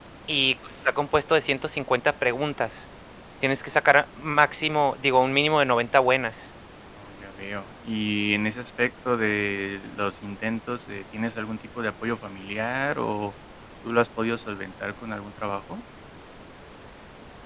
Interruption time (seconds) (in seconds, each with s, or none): none